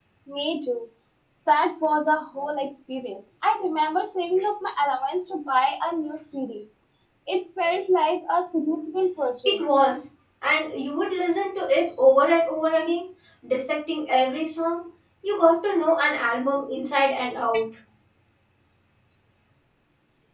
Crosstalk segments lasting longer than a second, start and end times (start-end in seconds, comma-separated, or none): none